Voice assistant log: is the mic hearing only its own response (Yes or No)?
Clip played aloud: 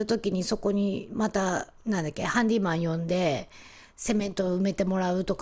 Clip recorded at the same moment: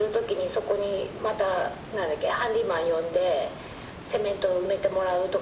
Yes